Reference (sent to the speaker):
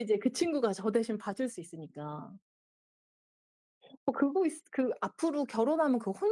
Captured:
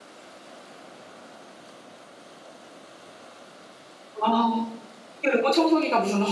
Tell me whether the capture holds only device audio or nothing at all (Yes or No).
No